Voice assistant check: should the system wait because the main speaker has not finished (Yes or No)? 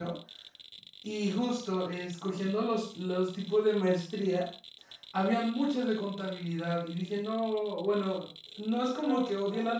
Yes